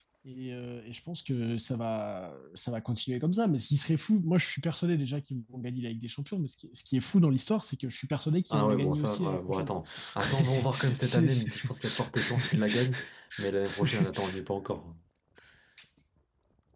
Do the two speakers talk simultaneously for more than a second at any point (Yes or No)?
Yes